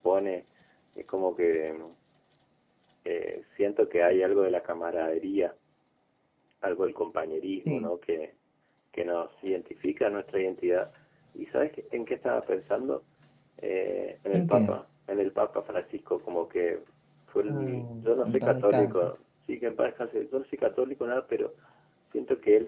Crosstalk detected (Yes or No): Yes